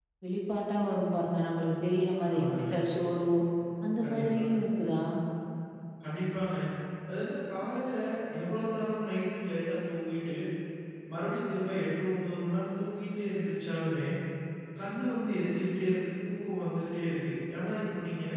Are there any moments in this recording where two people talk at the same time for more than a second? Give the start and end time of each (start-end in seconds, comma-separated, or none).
none